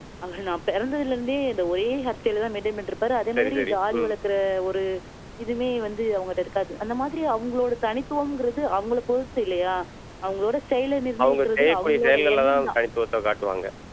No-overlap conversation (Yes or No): No